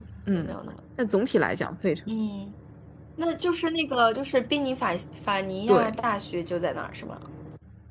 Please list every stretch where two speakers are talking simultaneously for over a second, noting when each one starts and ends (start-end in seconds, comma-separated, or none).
none